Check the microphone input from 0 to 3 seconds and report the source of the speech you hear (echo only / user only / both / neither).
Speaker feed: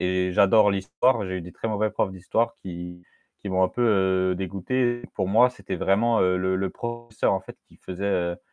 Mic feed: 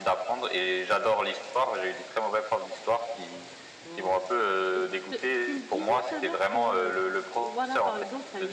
echo only